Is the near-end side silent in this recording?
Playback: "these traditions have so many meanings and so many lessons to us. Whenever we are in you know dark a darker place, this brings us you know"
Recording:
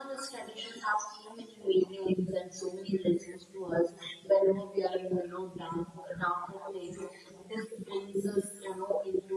Yes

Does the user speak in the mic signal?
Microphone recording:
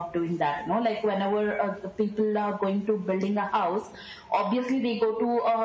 No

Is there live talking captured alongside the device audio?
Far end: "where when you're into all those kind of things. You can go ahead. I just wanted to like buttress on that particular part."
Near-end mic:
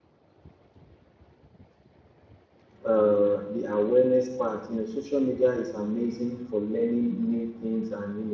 Yes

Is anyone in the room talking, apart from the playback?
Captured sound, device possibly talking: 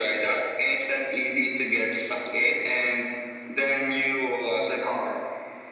No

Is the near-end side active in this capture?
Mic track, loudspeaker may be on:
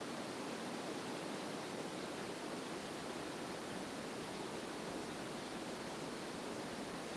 No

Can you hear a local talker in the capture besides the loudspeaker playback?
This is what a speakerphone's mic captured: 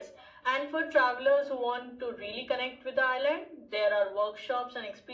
No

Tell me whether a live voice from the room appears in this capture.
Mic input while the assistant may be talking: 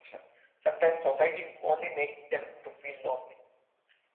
No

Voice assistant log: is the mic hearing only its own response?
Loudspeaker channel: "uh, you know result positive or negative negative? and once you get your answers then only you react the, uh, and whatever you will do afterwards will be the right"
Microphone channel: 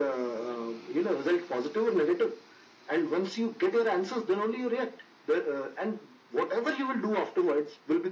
Yes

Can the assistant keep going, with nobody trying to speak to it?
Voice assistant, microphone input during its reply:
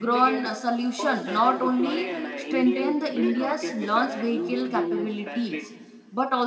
No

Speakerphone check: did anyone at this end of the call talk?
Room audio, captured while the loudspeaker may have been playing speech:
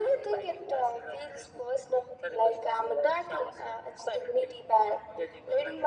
No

